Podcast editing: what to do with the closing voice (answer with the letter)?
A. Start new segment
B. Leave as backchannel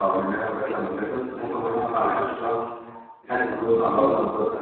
B